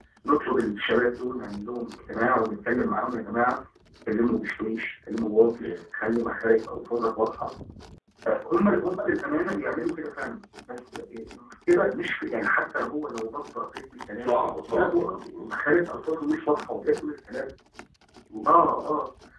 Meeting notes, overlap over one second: present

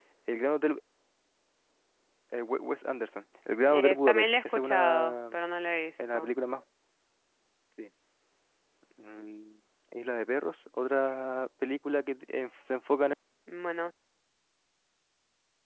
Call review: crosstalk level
present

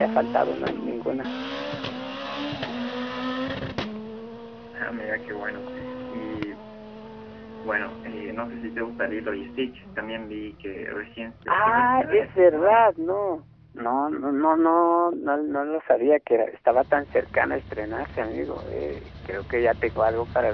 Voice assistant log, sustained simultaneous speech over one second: present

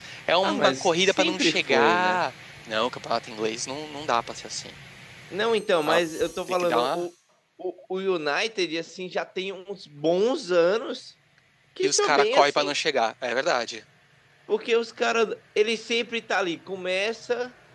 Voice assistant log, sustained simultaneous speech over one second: present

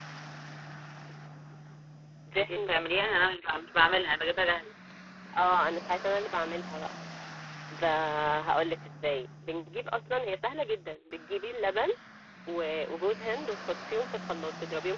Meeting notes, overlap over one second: none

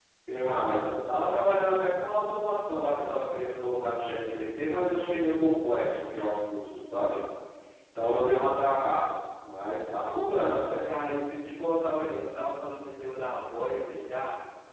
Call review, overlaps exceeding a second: none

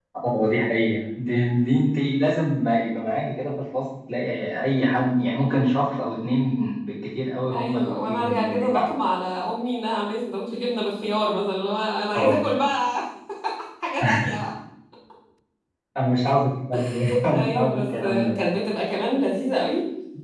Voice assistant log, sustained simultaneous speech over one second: present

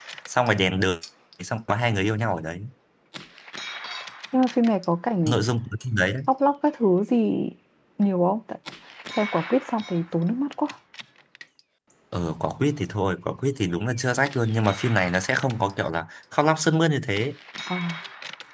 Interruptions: none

